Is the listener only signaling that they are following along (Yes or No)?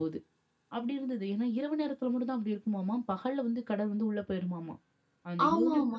No